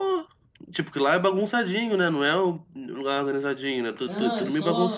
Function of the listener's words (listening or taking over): taking over